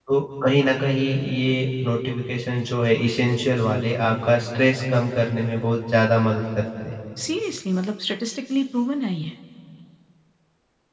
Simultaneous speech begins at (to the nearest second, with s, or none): none